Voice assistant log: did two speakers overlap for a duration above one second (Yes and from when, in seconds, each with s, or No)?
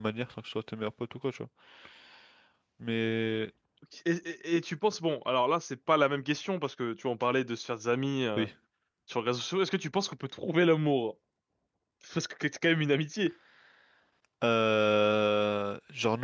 No